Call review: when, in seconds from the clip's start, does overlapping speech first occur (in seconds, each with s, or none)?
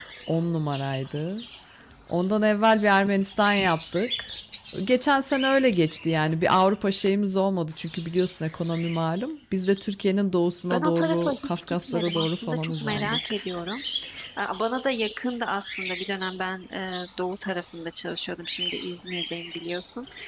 10.7 s